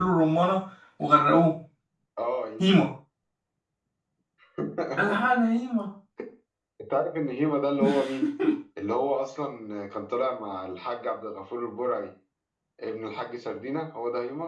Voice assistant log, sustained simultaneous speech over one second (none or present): none